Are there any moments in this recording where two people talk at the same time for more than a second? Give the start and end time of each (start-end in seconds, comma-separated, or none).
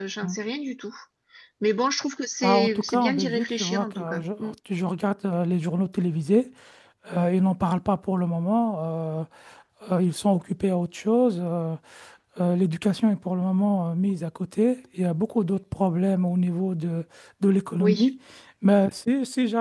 2.4-4.5